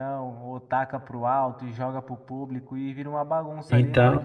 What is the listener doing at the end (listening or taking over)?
listening